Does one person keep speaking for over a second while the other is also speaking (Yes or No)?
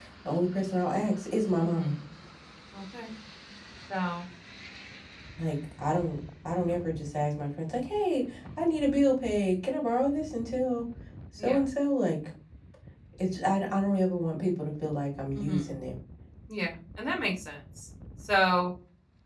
No